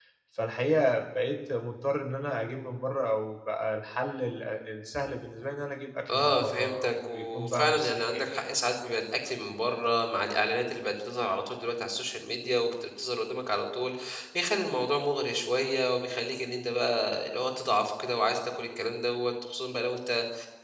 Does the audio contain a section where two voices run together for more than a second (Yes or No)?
Yes